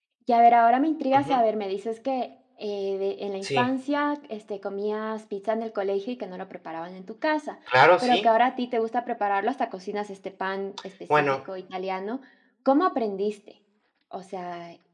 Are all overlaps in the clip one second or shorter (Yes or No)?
Yes